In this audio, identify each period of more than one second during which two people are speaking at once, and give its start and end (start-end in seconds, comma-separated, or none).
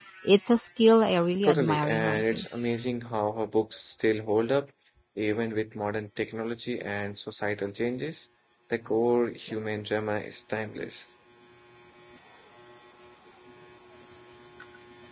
1.4-2.7